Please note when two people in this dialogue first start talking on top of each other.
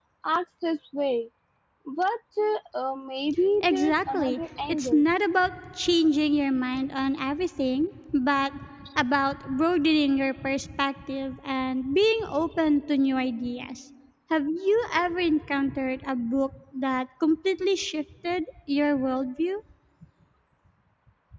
3.6 s

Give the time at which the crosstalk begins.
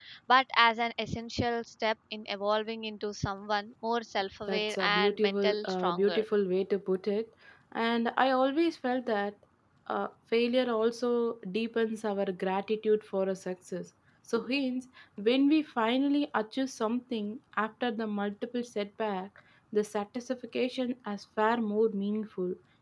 4.5 s

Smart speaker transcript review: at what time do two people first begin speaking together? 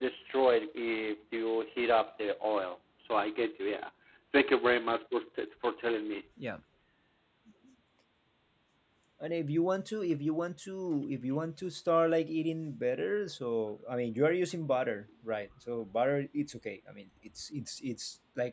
none

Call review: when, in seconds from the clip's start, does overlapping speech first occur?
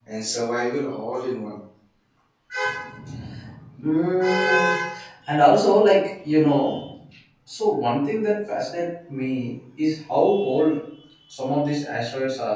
none

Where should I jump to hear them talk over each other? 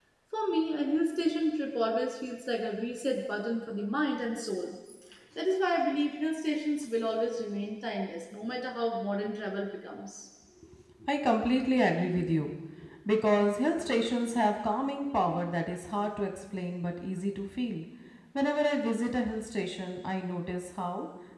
none

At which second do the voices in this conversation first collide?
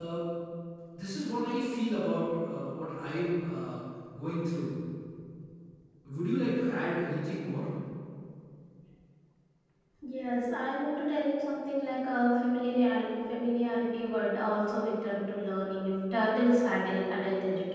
none

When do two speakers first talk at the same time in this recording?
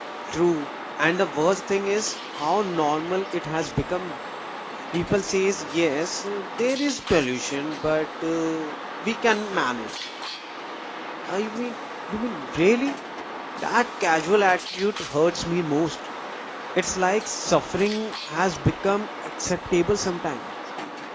none

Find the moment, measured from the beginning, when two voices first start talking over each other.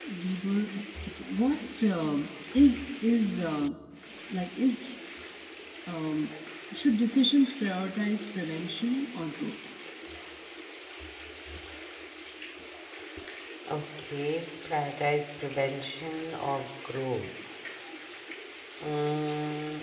none

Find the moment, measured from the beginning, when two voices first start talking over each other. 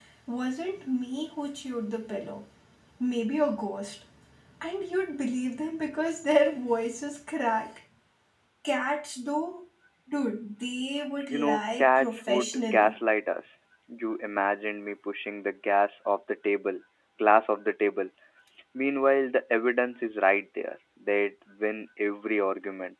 11.3 s

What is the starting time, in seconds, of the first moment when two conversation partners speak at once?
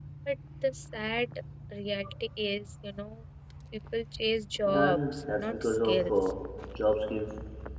4.7 s

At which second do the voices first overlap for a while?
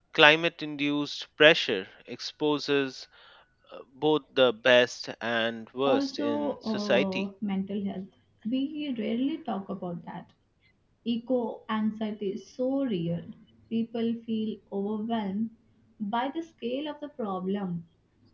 5.9 s

